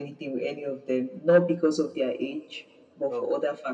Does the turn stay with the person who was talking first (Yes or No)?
No